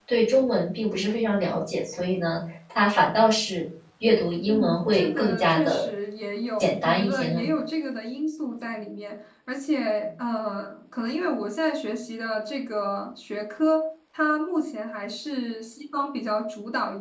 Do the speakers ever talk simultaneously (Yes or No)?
Yes